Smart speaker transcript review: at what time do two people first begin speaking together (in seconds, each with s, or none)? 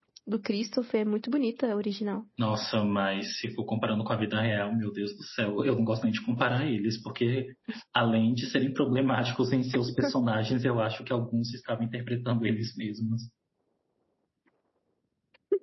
none